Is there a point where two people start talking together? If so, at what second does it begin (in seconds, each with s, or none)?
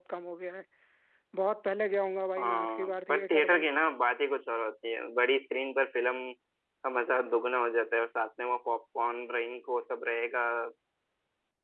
2.4 s